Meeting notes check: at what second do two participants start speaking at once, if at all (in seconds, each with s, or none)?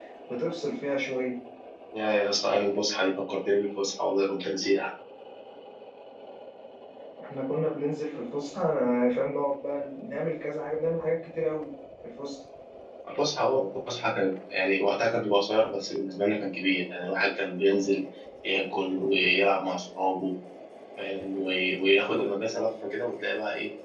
none